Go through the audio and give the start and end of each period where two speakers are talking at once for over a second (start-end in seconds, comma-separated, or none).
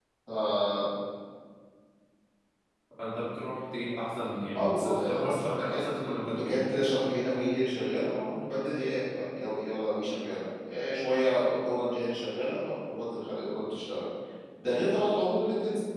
4.5-6.7